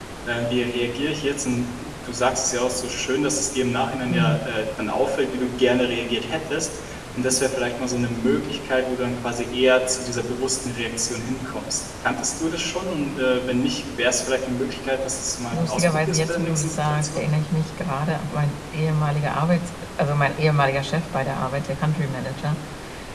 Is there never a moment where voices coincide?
No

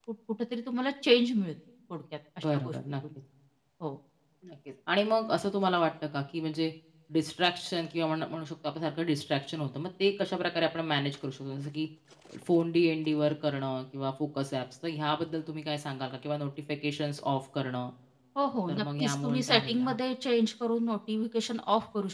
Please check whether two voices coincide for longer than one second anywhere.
Yes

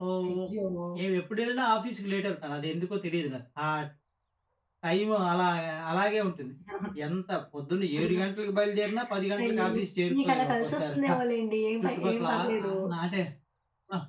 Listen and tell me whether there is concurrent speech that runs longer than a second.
Yes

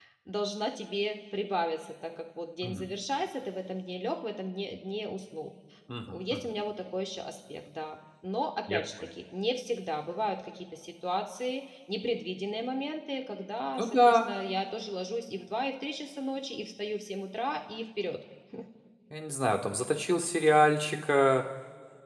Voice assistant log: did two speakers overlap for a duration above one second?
No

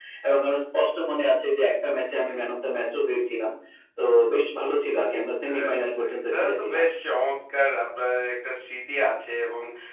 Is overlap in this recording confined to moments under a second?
No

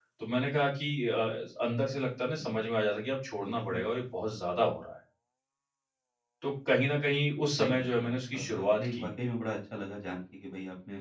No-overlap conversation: No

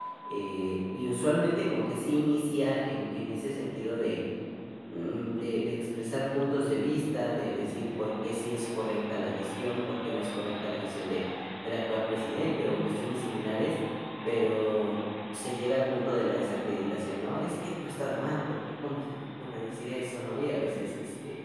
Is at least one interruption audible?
No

